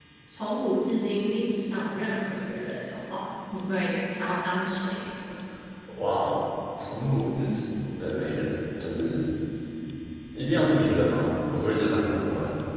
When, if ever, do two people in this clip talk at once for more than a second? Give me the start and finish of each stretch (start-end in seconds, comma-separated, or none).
none